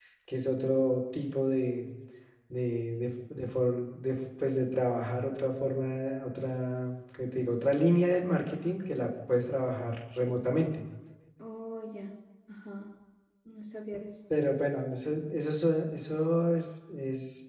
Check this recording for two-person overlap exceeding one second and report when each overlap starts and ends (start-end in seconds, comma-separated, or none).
none